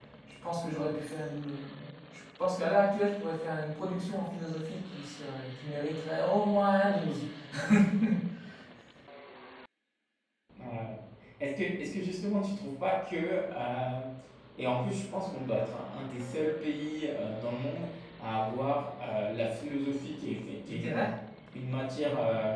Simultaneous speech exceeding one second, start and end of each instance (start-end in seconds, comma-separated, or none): none